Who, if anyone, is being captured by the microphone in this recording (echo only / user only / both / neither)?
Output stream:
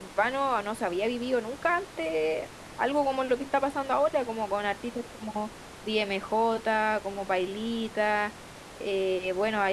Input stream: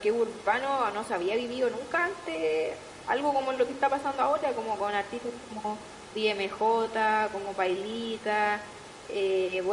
echo only